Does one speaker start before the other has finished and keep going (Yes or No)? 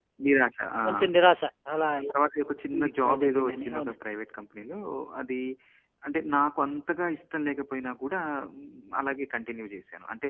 Yes